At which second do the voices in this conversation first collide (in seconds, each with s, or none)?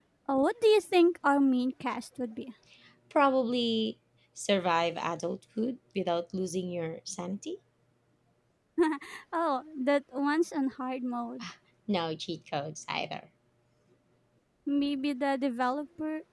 none